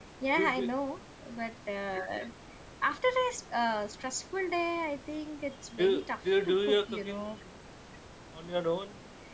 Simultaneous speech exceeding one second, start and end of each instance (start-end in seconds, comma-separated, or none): 5.8-7.2